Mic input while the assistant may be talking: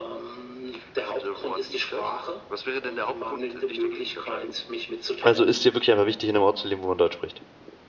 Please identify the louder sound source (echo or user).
user